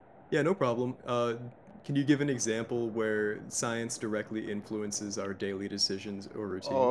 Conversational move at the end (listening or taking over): taking over